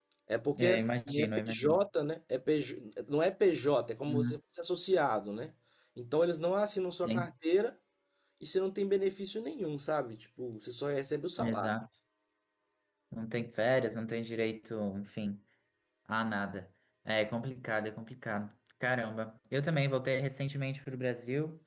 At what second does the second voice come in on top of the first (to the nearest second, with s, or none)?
1 s